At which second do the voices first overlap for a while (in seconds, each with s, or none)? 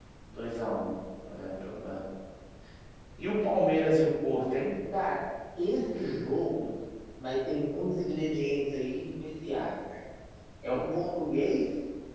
none